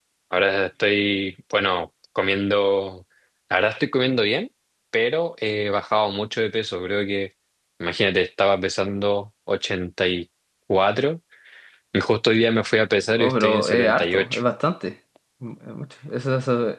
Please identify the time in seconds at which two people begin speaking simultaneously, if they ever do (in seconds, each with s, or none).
13.2 s